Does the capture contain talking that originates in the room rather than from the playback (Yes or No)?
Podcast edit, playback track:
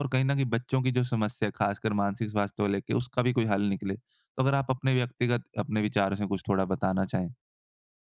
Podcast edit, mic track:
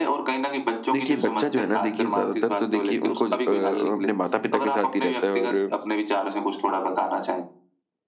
Yes